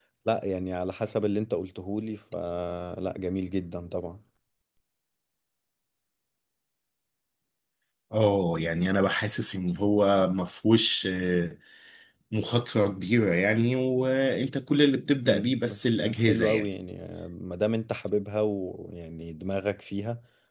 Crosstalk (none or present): present